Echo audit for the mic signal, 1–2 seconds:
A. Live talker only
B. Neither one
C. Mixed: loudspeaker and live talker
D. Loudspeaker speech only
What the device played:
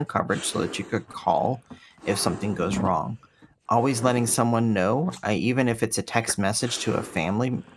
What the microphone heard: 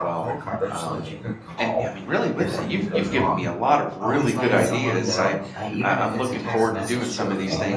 C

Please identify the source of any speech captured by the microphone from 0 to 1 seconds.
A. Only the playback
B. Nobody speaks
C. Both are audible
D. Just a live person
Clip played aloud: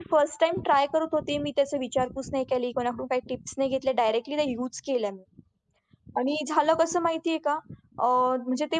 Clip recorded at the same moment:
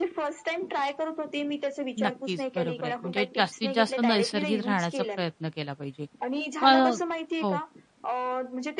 A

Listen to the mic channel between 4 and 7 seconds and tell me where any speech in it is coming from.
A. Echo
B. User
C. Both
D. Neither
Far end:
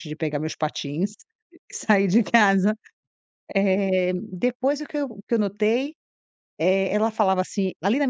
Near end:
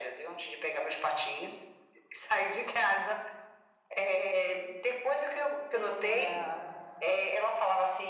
C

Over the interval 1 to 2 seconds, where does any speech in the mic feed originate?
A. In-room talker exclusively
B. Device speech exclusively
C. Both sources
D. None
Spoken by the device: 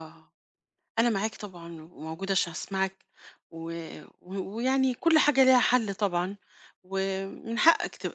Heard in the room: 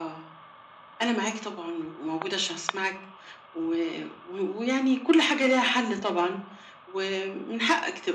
B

